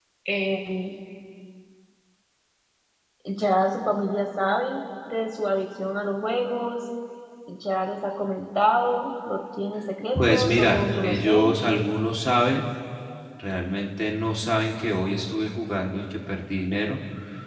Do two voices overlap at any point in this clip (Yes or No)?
Yes